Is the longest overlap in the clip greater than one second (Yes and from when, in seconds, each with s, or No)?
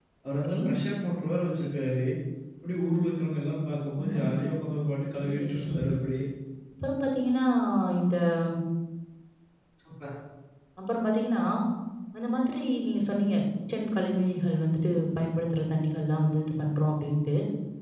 No